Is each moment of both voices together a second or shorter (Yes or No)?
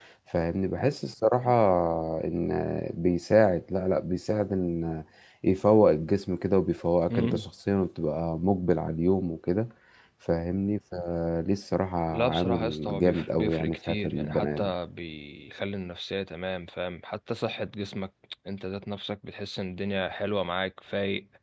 No